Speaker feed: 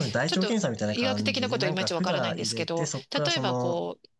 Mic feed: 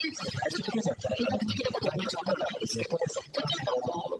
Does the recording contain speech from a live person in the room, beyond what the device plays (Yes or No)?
No